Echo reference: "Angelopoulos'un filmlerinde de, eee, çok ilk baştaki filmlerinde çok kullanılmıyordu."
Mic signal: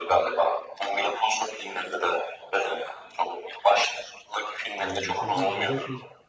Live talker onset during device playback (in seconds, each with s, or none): 4.8 s